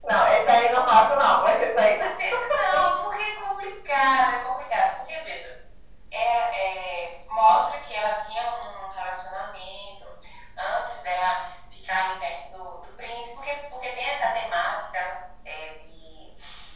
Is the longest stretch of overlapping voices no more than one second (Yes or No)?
Yes